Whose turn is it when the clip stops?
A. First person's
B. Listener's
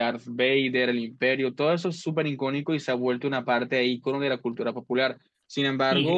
B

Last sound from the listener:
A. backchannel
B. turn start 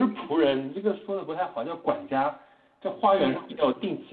A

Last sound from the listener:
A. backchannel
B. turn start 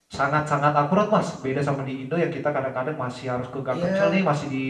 A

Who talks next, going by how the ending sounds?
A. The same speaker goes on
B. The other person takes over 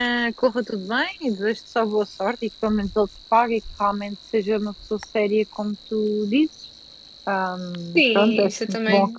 B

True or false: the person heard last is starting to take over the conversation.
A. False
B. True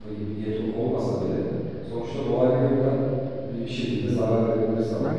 B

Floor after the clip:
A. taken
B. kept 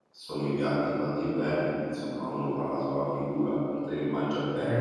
A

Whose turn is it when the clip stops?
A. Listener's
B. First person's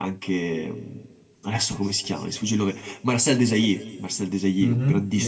A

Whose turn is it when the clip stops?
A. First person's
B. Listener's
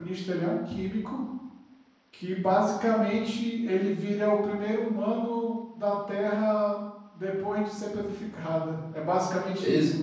B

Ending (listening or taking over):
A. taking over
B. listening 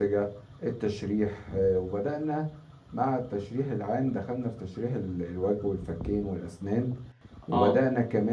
B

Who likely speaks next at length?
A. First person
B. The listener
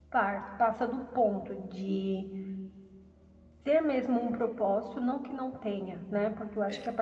A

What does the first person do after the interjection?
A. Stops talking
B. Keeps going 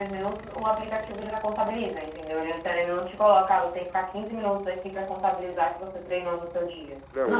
A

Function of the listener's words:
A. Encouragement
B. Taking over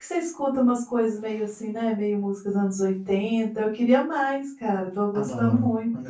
B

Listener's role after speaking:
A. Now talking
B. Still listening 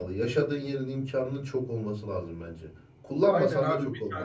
A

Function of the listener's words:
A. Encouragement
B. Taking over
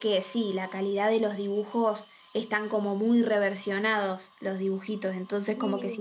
A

